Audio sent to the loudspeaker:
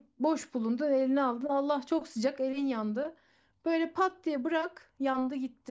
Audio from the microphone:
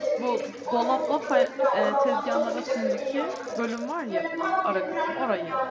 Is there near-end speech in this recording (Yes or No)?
Yes